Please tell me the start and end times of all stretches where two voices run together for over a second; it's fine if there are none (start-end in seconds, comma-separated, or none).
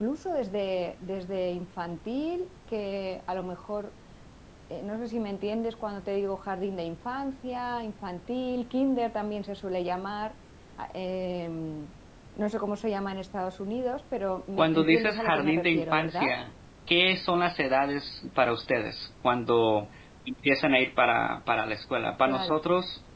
14.6-16.3